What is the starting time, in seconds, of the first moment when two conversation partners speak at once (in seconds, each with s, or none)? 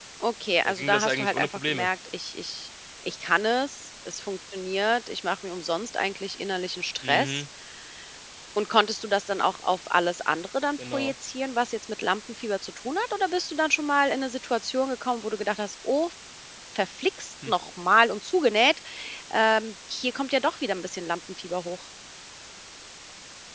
0.6 s